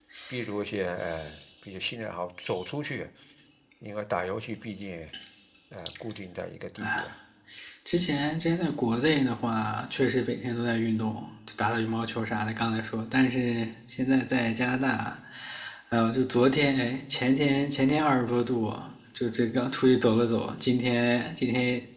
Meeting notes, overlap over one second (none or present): none